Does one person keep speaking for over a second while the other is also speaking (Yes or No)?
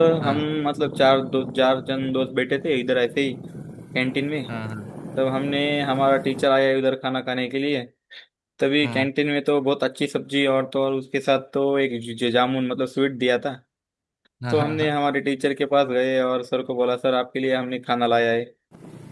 No